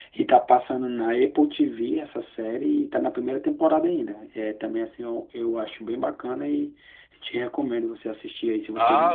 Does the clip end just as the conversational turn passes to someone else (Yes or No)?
Yes